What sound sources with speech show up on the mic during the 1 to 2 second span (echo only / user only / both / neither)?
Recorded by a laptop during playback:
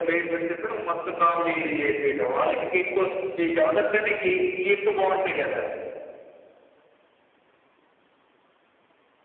echo only